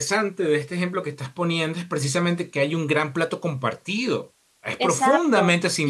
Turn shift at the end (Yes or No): Yes